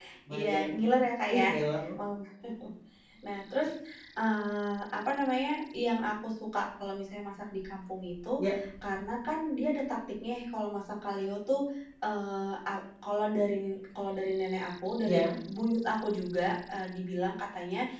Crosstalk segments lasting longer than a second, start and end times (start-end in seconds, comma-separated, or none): none